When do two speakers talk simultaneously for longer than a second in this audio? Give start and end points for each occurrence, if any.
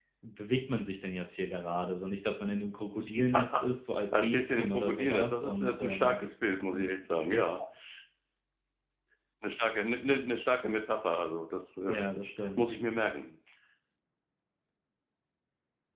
4.1-6.2

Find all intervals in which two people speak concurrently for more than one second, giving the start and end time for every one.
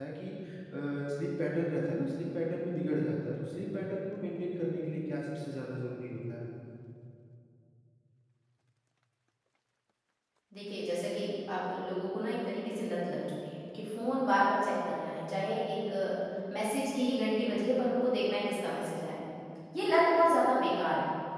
none

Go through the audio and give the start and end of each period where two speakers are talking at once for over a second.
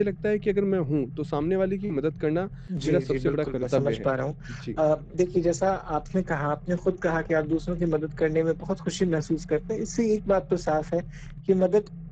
2.9-4.1

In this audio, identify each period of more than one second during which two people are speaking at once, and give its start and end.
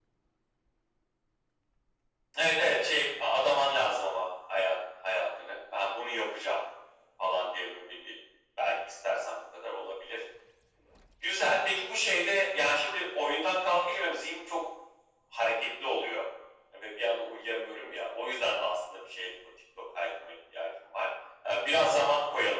none

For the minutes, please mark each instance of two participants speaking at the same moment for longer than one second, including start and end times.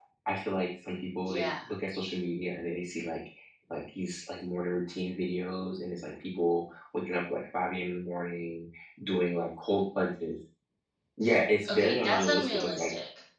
11.7-12.9

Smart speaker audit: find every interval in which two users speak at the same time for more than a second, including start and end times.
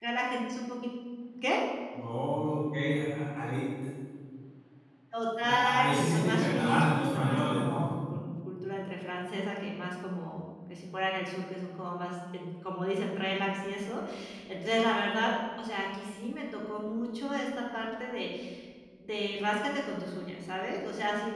5.4-7.9

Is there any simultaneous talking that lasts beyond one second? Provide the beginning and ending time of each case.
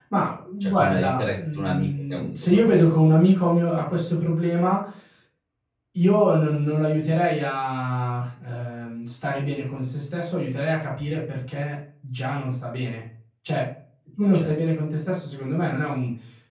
0.6-3.0

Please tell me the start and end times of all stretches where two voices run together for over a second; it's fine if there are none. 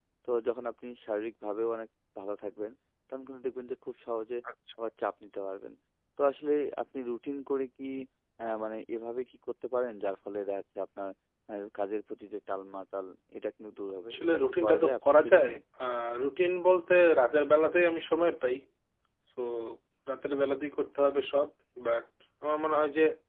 14.1-15.5

